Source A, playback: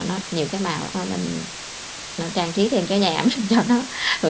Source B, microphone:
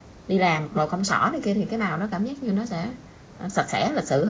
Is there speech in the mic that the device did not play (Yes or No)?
Yes